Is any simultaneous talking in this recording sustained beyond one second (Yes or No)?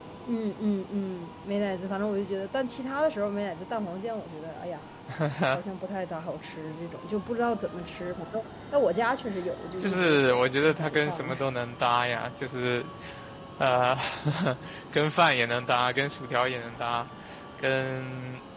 Yes